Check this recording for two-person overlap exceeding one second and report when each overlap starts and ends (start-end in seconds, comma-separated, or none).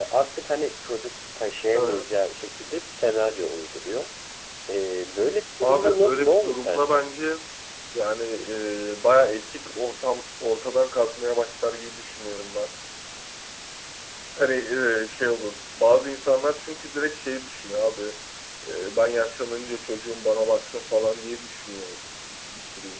5.6-7.0